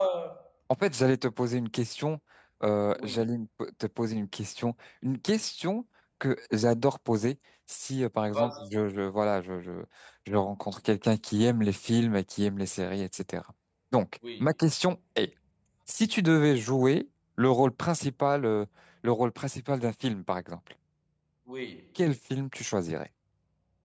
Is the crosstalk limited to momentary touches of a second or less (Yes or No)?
Yes